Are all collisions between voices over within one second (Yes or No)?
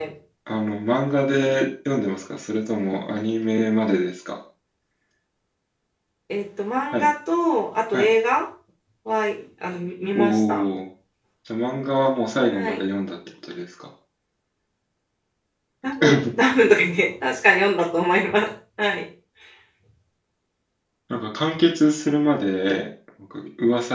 Yes